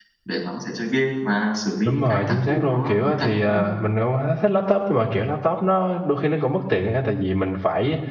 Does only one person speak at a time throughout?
No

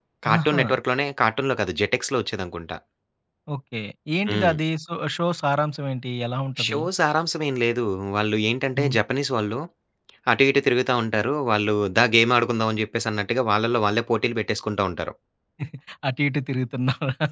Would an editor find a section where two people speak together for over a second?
No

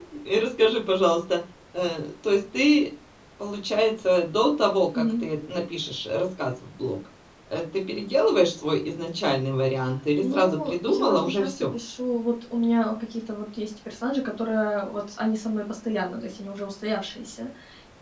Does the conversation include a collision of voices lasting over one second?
Yes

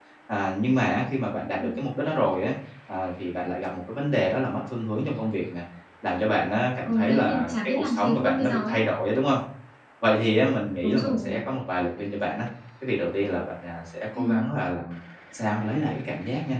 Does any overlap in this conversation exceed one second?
Yes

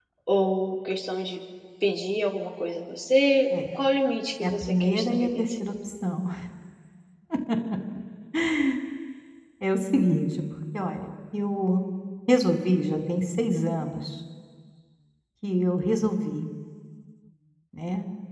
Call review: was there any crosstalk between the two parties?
Yes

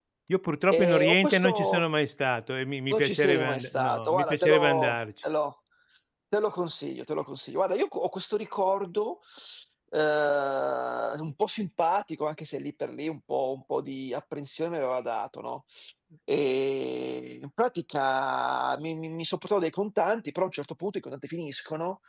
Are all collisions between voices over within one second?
No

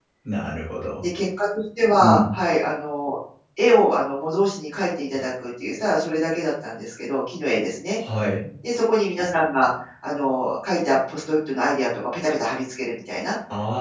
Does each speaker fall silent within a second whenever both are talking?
Yes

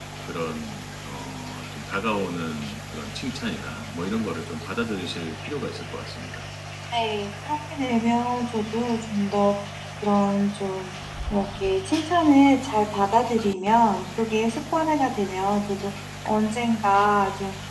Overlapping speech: No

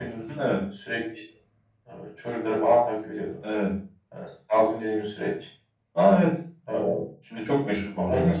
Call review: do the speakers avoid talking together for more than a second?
Yes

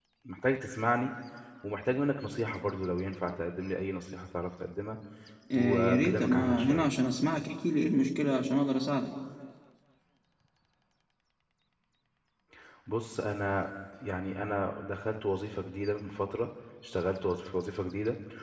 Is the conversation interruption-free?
No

